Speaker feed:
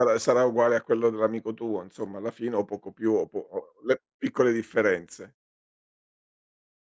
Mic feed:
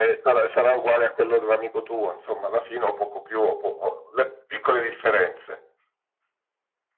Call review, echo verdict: present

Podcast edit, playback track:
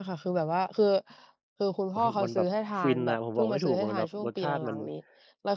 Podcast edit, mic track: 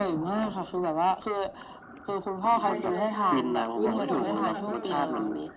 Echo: present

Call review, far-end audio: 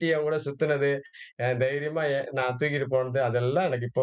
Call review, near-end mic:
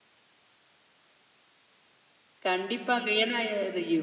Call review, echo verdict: none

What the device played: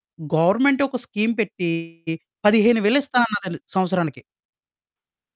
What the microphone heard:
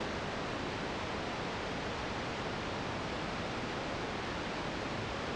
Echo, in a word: none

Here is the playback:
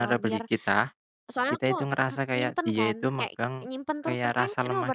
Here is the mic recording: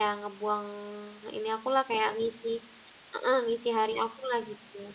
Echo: none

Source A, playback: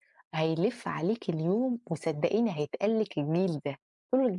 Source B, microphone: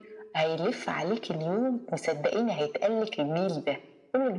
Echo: present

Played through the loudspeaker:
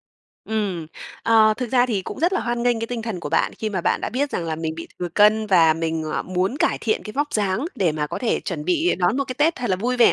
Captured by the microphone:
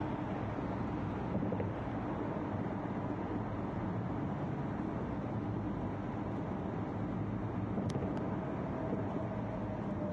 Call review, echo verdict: none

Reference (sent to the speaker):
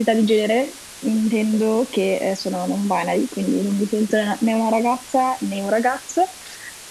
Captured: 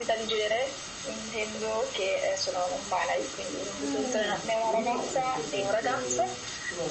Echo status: present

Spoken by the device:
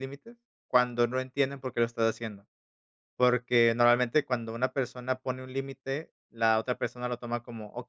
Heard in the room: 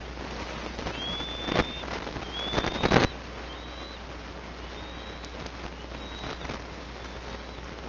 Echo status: none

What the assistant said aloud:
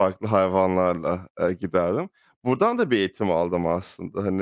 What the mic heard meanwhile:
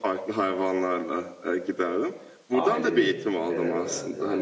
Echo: present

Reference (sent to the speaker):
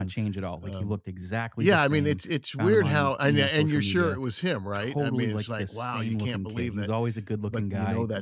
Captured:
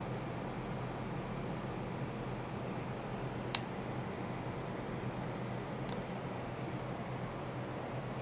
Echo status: none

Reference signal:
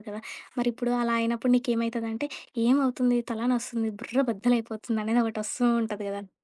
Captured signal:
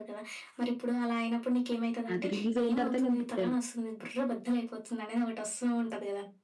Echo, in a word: present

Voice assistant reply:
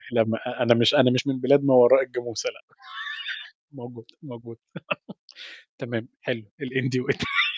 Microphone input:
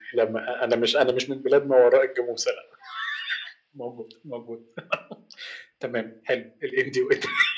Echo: present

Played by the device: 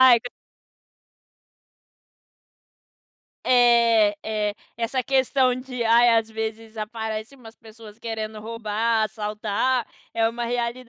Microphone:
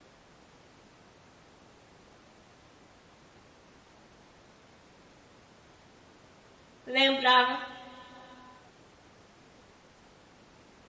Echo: none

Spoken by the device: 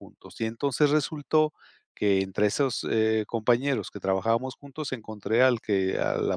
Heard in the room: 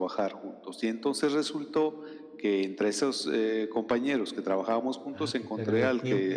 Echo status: present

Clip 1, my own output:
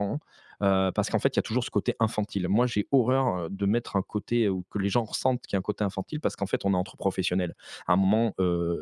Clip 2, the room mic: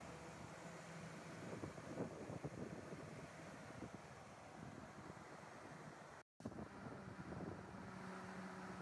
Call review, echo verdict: none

